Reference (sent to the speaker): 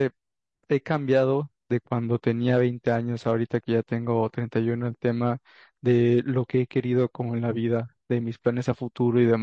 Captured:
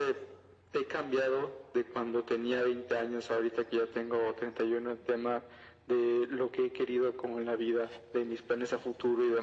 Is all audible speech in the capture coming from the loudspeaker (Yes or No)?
Yes